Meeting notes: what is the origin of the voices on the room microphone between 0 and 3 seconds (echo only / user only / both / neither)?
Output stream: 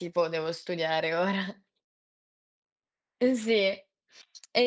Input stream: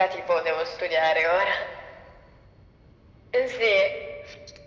echo only